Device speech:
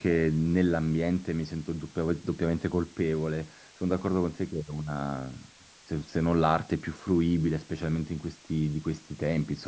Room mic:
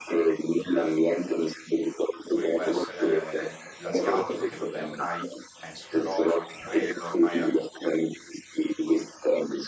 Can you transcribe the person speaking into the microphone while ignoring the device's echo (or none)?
come può essere il- l'asiatico, che vabbè ormai è esploso anche quello, ormai è,